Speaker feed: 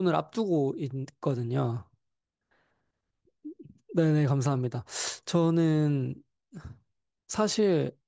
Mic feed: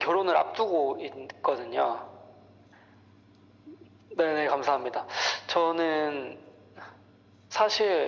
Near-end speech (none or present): none